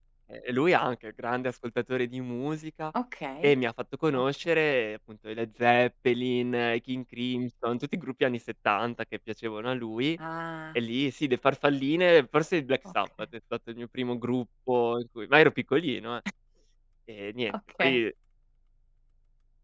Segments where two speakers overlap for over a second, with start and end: none

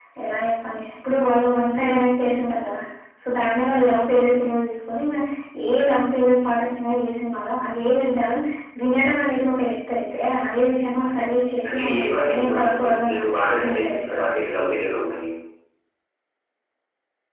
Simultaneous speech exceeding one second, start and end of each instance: 11.7-14.2

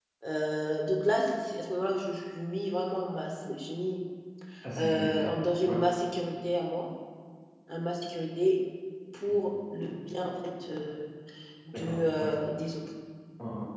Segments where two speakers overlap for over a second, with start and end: none

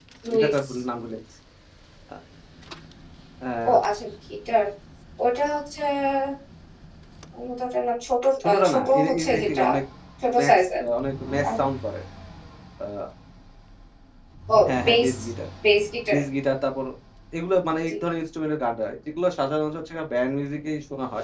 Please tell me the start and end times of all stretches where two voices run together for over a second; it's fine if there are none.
8.4-9.6

